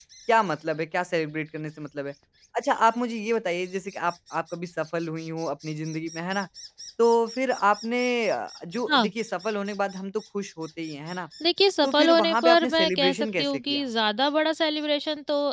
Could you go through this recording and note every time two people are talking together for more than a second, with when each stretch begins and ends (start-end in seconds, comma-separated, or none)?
11.8-13.8